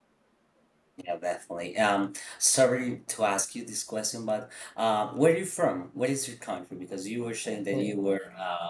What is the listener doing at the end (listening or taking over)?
listening